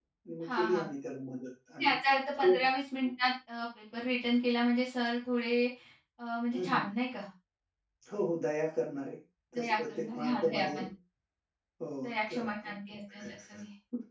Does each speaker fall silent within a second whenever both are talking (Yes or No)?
No